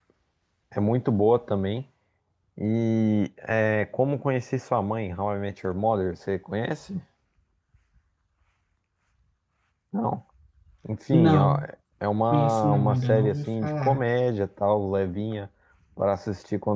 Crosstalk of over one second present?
Yes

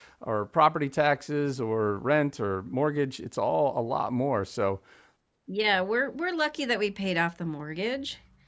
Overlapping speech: No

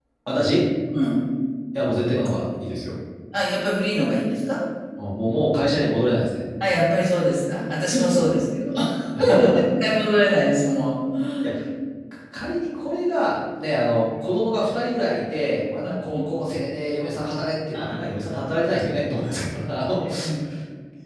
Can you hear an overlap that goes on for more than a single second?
No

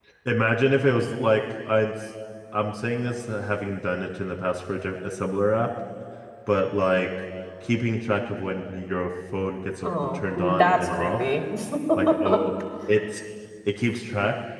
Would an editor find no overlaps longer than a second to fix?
No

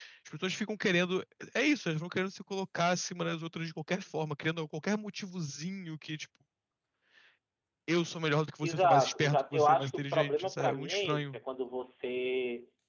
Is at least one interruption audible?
Yes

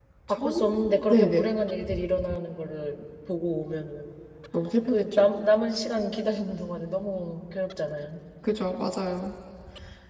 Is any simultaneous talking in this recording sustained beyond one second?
Yes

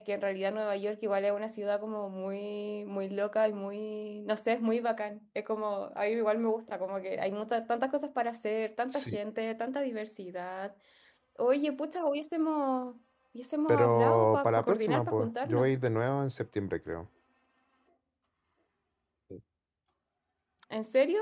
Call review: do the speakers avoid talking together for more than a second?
No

